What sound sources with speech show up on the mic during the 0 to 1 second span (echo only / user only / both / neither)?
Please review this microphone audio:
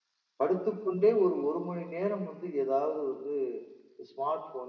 echo only